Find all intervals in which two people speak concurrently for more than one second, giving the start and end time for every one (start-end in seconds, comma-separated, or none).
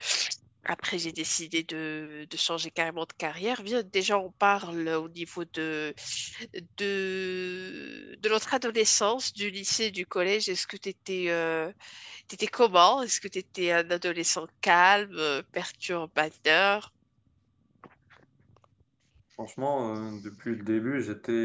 none